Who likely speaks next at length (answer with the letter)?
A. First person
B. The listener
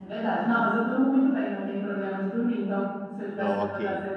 A